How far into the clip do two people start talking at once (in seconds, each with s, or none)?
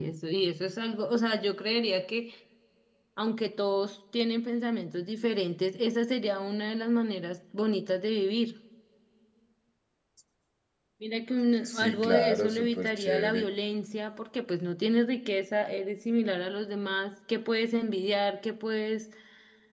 11.7 s